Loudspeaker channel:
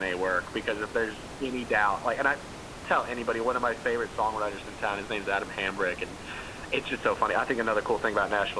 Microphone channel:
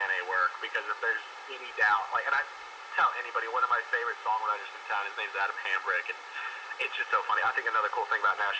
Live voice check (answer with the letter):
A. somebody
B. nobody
B